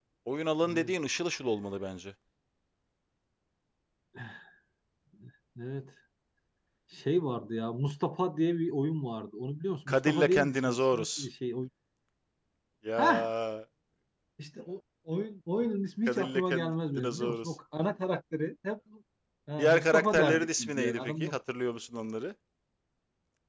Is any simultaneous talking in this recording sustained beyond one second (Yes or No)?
Yes